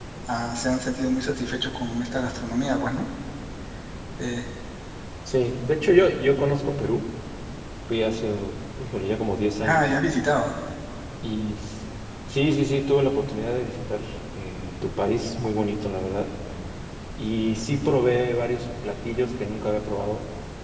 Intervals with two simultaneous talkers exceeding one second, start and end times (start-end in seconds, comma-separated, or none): none